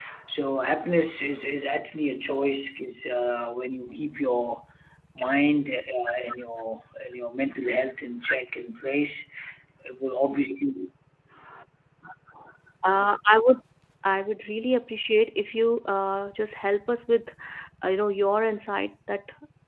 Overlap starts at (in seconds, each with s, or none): none